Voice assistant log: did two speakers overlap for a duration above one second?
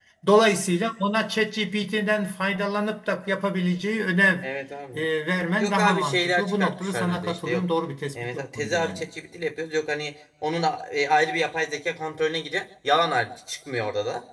Yes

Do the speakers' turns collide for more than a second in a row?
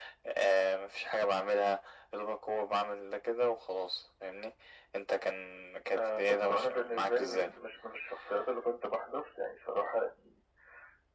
Yes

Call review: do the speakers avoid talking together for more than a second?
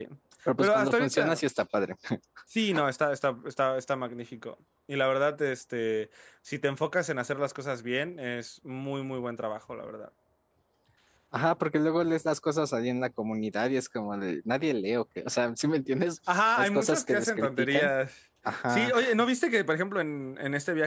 No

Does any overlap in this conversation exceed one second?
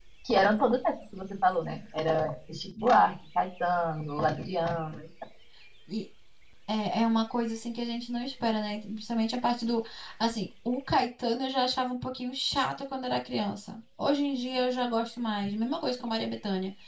No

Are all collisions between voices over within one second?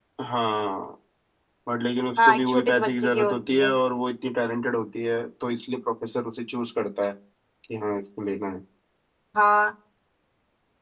No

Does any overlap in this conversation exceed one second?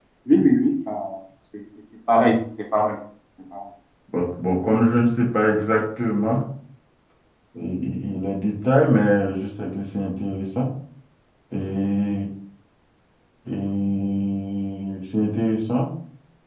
No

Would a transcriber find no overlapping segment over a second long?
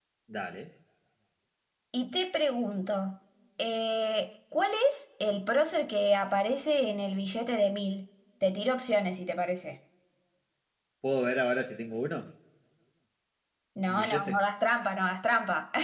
Yes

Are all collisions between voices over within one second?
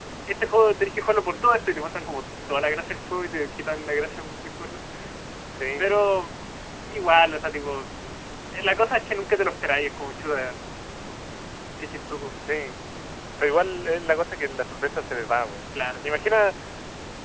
Yes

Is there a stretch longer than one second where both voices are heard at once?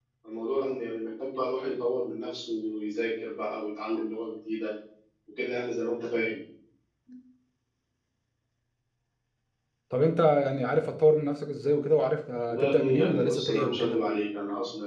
Yes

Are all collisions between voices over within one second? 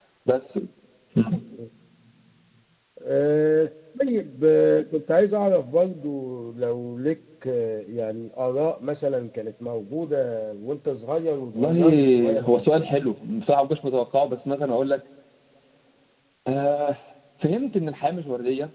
No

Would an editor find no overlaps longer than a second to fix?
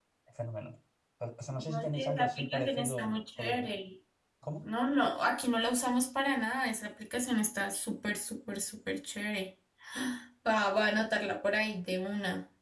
No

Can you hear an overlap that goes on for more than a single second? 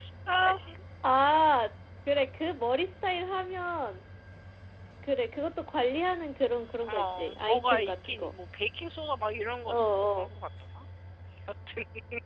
Yes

